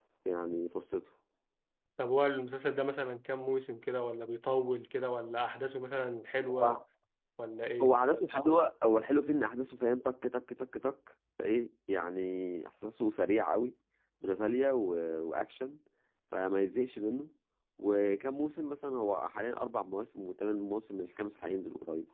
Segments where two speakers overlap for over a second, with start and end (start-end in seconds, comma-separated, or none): none